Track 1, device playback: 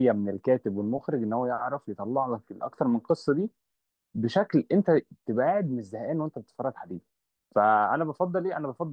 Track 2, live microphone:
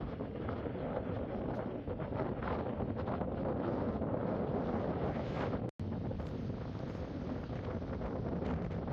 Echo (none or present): none